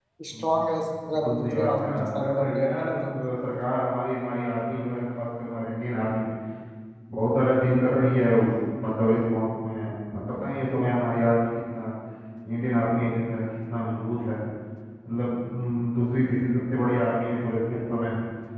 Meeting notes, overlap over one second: present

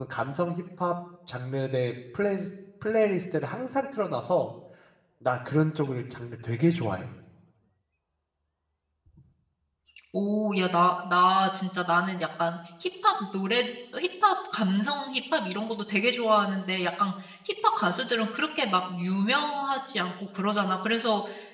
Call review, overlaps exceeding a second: none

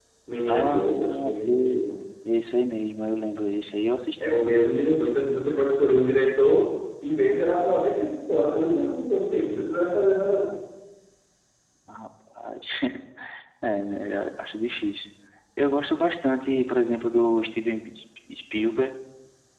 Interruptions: present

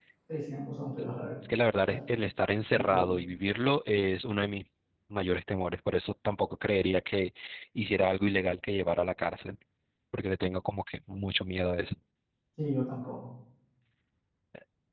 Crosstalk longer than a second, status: none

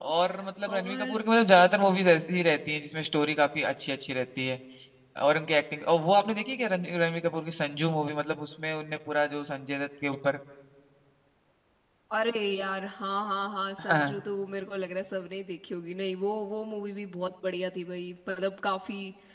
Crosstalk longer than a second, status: none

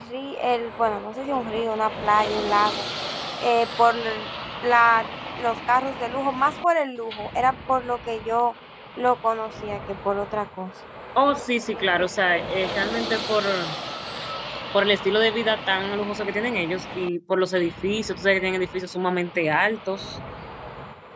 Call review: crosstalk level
none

